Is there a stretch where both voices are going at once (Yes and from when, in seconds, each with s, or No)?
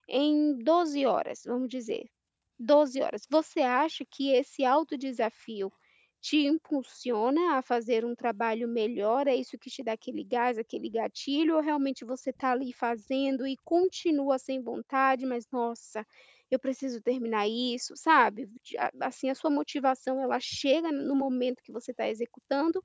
No